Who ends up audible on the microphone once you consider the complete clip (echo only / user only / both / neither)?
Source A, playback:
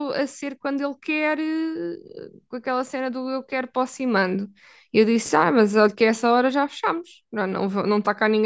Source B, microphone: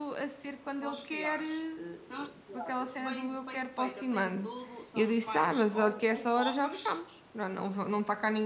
both